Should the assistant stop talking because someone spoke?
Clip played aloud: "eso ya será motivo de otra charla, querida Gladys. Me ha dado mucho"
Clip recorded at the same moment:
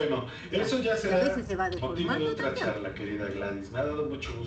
Yes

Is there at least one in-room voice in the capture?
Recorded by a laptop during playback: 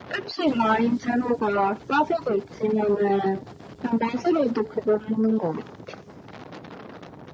No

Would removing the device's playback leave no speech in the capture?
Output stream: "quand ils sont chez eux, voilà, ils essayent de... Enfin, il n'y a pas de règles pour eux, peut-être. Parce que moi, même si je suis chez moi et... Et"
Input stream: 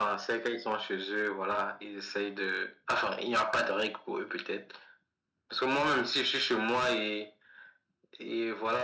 Yes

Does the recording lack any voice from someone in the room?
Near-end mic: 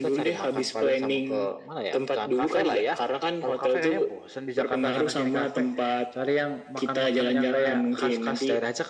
Yes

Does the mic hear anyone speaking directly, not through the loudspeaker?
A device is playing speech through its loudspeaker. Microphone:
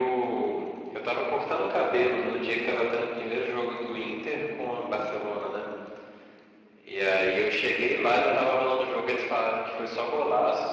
No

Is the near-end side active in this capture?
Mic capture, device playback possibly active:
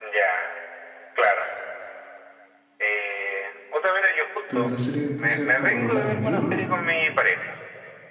Yes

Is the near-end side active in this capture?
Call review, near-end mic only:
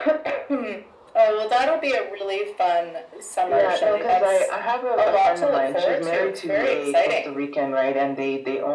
No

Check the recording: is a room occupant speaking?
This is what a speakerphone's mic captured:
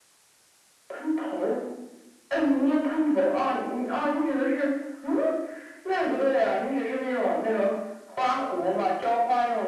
No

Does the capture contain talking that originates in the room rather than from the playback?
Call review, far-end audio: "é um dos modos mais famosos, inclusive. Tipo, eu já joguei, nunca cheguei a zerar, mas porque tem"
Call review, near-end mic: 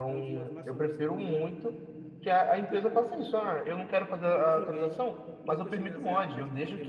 Yes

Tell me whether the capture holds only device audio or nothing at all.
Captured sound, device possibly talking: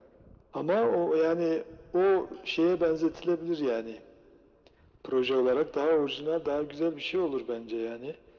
Yes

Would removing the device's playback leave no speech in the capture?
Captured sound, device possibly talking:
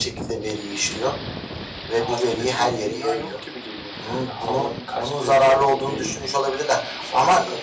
Yes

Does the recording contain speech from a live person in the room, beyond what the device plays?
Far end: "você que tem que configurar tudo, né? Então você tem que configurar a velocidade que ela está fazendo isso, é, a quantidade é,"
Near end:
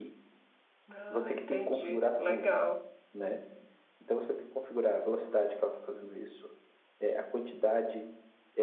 Yes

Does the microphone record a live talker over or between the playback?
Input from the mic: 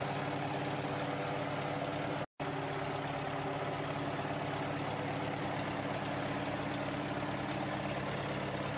No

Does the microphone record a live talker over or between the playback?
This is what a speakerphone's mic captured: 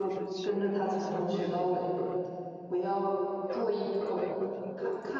Yes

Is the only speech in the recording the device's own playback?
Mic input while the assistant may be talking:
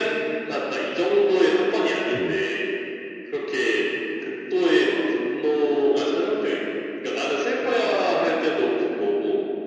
No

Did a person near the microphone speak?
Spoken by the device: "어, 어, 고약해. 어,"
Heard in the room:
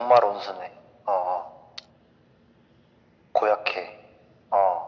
No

